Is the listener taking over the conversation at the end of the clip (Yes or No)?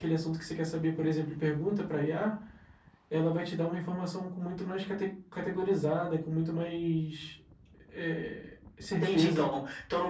Yes